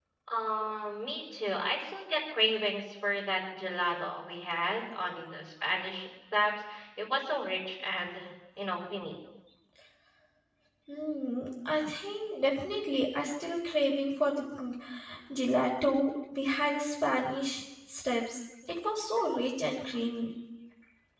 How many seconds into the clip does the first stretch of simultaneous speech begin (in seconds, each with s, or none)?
none